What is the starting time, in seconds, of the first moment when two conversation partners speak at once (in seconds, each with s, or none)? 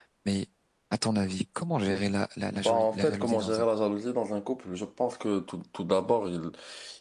2.5 s